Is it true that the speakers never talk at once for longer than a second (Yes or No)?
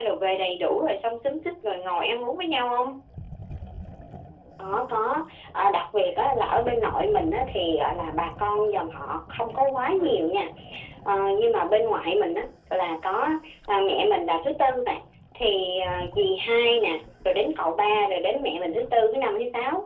Yes